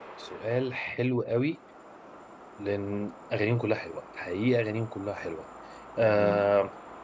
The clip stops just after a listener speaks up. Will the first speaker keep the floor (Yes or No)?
Yes